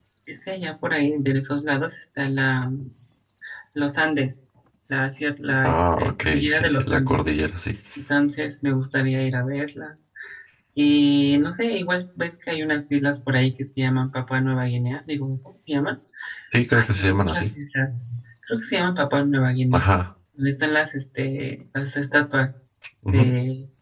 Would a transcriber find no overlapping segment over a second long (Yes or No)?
No